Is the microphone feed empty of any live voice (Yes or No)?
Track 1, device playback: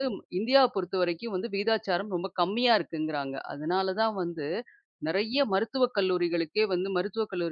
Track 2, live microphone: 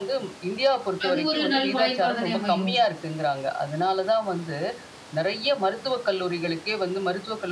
No